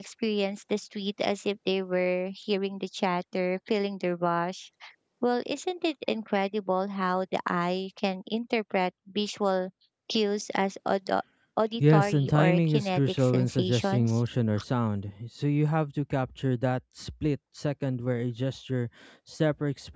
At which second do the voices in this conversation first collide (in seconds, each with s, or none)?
11.8 s